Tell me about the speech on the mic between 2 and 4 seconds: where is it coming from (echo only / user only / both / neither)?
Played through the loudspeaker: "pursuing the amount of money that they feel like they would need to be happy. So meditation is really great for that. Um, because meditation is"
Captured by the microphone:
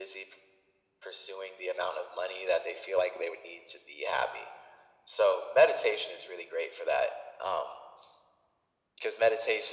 echo only